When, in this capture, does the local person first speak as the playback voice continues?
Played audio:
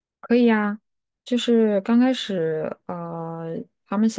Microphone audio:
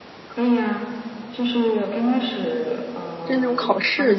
3 s

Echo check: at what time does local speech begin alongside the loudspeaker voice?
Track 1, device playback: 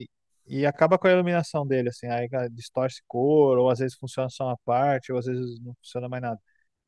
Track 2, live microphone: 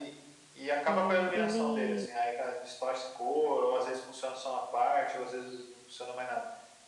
1 s

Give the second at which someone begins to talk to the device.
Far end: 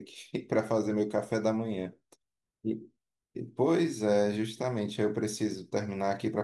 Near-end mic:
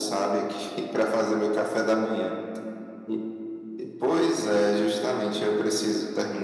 none

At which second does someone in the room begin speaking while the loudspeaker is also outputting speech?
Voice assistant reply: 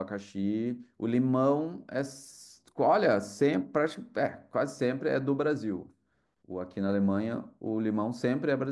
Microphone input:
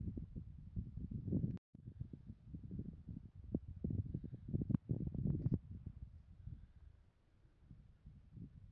none

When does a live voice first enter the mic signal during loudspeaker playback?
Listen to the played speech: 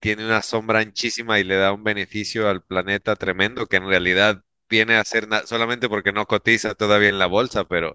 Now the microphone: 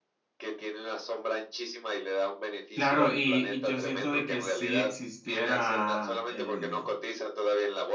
3 s

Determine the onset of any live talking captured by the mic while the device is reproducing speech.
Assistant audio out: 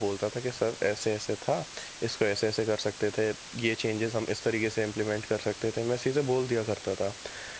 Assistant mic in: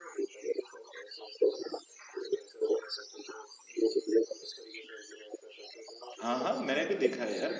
6 s

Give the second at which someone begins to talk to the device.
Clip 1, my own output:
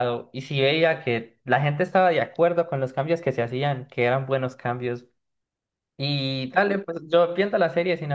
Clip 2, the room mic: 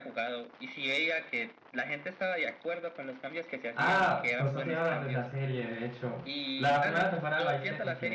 4 s

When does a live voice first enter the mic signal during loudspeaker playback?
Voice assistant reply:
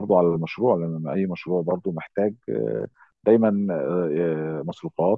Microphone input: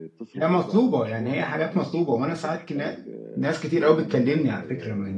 0 s

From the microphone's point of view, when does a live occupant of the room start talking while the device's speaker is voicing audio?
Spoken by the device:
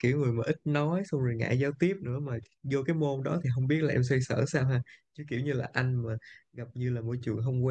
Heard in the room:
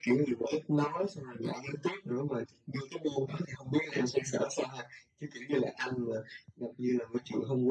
none

